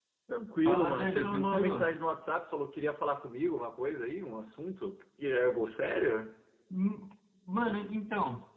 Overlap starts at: 1 s

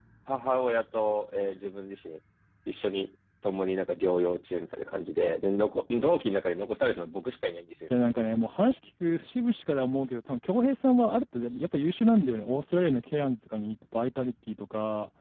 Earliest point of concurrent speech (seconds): none

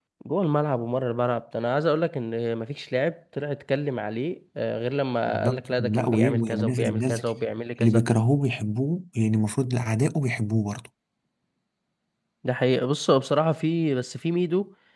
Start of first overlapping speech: 5 s

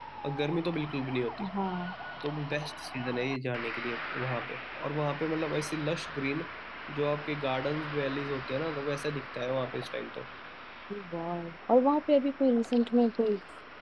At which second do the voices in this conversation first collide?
none

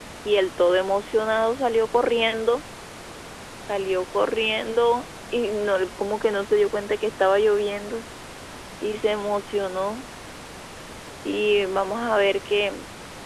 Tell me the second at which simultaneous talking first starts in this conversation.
none

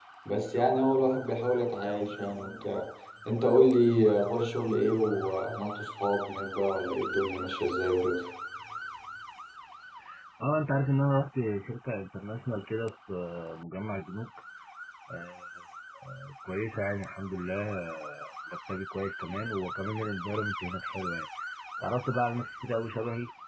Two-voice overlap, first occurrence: none

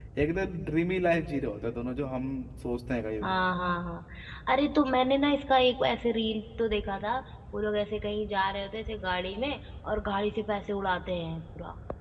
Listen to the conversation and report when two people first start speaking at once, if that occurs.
none

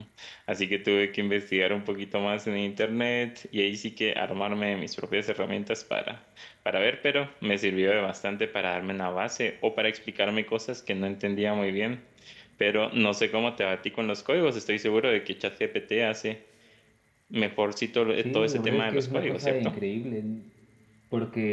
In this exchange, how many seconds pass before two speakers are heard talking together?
18 s

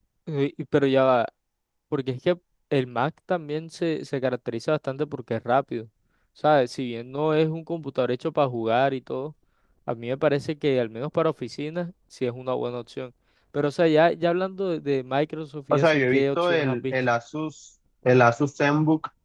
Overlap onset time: 16 s

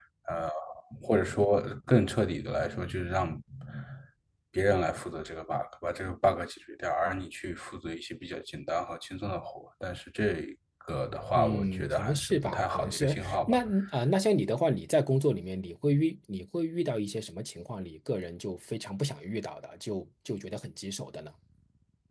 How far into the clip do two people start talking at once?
11 s

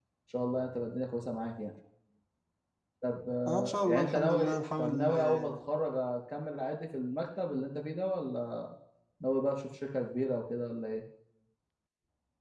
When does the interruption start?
3 s

